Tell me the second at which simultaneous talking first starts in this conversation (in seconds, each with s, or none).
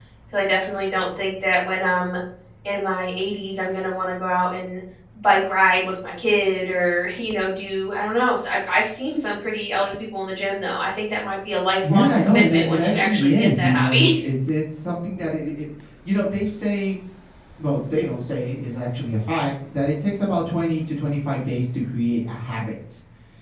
11.8 s